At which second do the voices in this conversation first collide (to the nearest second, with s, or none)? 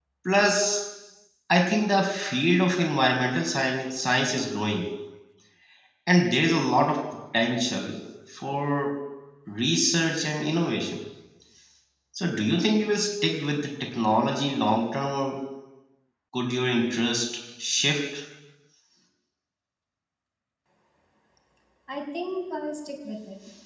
none